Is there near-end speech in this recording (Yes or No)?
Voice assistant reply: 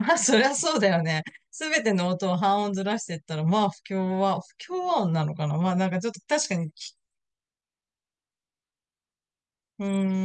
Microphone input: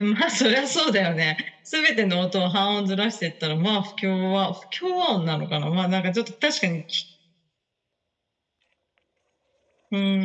No